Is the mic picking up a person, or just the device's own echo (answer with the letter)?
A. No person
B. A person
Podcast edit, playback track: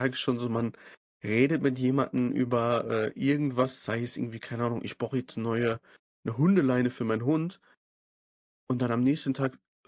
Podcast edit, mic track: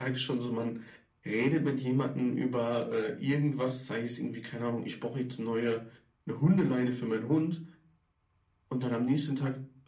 A